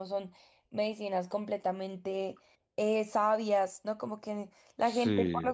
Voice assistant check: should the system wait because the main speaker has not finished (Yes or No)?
Yes